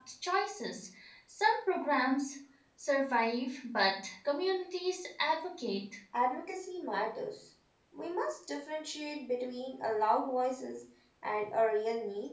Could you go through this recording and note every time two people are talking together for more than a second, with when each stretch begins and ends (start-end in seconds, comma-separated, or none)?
none